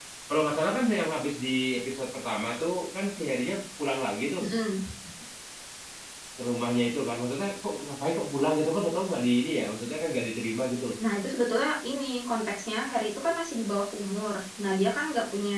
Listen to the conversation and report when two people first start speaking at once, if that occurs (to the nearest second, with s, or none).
none